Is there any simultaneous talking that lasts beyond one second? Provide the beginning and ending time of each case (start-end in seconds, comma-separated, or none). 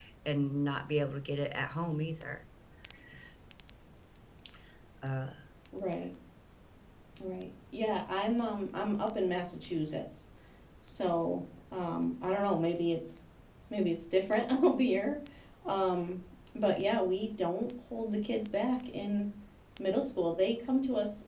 none